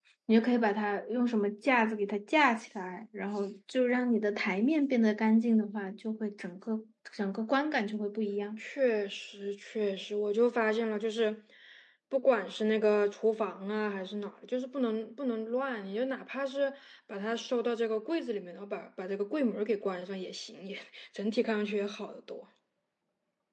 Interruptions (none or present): none